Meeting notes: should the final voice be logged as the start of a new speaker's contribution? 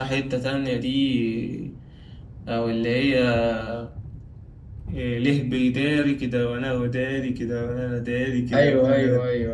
Yes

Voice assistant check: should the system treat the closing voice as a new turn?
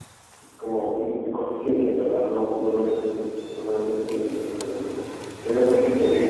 No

